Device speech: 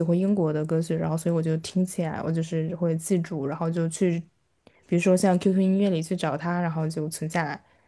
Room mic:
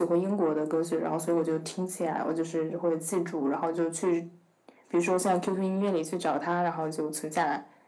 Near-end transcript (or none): none